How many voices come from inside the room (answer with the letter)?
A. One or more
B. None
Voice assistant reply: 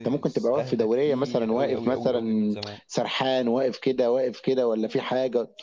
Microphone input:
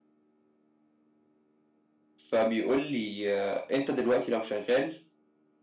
A